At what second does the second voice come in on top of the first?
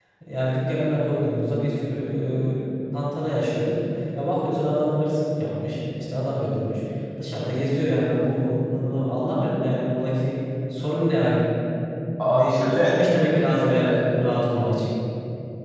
12.2 s

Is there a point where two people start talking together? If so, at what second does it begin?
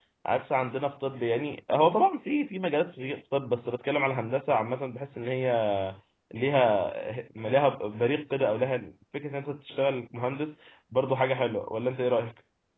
none

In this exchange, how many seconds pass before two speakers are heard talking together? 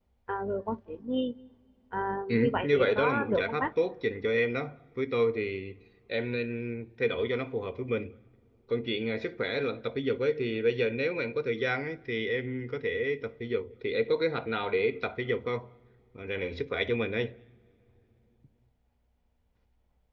2.3 s

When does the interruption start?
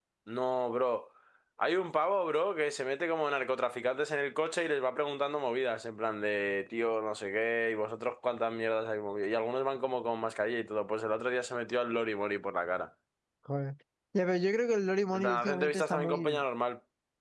15.1 s

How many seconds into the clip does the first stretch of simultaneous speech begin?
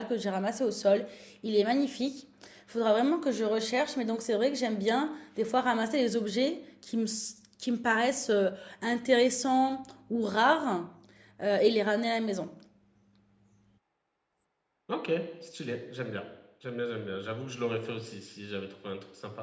none

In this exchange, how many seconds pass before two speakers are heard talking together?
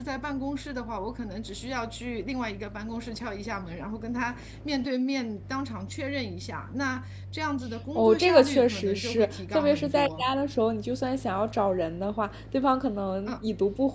8.0 s

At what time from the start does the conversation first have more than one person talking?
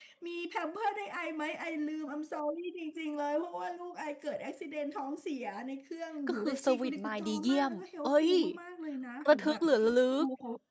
6.3 s

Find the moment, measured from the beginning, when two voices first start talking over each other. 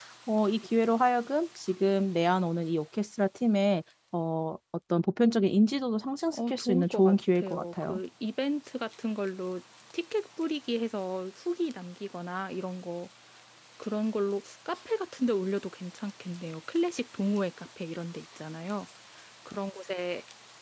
6.3 s

